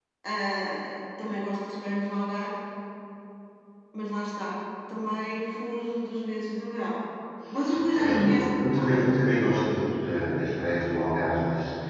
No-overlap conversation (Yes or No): No